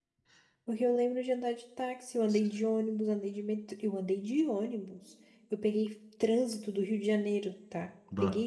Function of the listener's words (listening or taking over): listening